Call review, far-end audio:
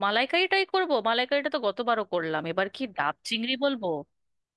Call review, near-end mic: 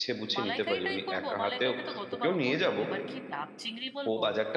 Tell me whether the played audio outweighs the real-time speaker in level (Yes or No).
No